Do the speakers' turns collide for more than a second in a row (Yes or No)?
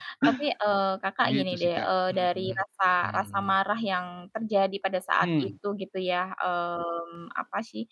Yes